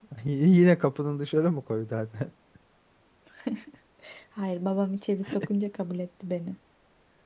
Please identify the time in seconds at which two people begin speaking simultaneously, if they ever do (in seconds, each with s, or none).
none